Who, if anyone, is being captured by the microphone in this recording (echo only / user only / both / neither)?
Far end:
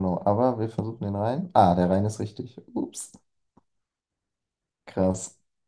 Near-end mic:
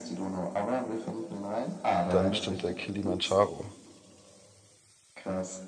both